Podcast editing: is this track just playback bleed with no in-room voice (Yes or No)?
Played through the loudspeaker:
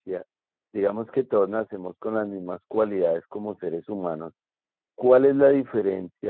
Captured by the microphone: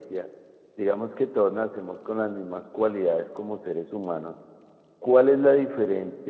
Yes